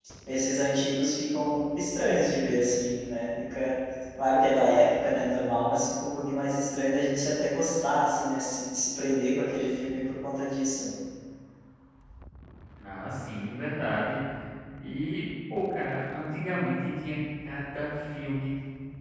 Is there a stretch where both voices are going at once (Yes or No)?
No